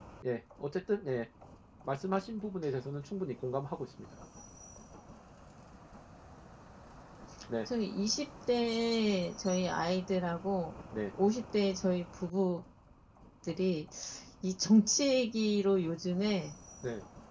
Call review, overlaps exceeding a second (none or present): none